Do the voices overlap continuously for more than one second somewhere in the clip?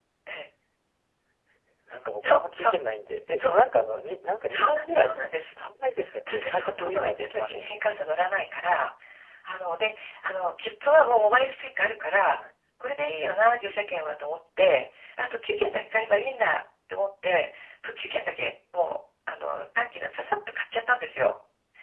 Yes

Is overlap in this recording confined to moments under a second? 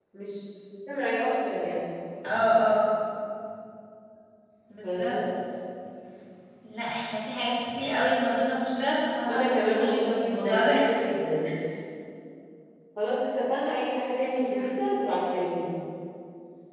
No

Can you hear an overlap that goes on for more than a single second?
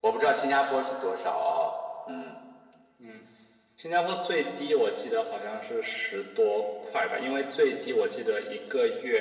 No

